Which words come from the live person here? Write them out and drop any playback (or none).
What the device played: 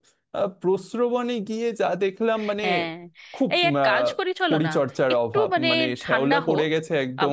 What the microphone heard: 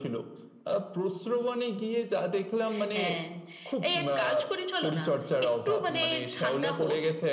none